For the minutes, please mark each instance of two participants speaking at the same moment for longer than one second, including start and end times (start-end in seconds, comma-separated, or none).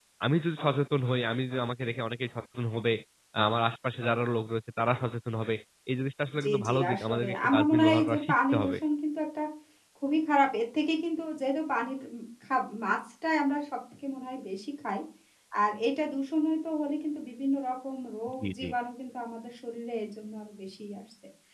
6.4-8.8